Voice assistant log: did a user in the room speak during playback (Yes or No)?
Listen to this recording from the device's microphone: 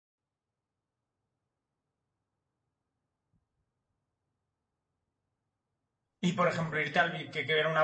Yes